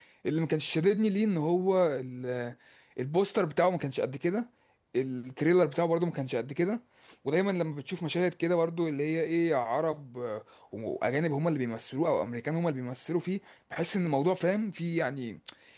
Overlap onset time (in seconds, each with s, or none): none